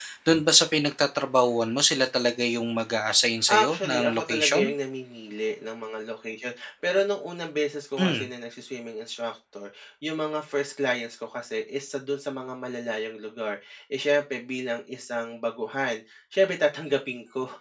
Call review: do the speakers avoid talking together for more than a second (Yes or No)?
No